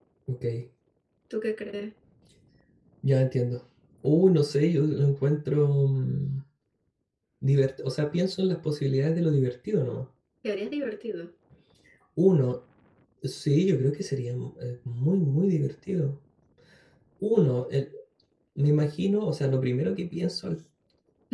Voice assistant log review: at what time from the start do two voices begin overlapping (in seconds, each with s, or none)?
none